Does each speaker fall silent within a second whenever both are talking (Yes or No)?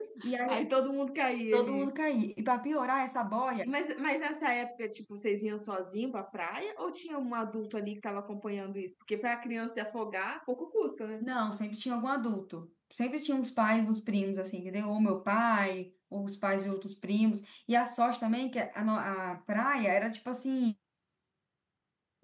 Yes